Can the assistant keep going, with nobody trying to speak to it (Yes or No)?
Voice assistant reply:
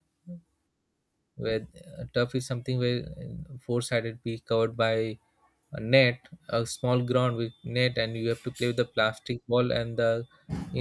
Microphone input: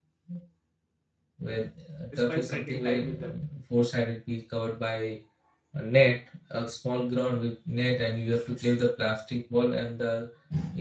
No